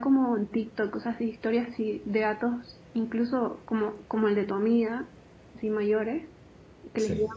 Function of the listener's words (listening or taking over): listening